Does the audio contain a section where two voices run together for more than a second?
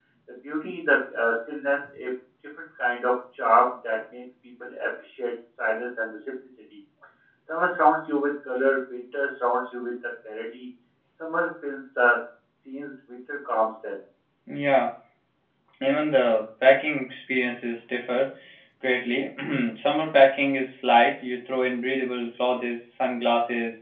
No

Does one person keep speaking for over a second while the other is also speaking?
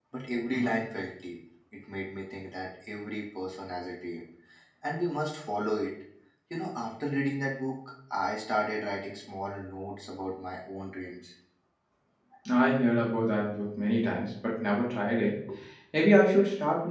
No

